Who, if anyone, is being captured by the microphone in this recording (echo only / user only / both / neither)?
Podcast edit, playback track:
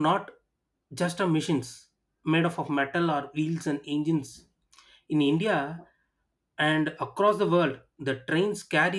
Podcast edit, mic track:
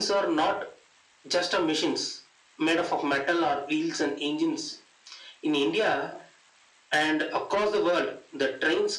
echo only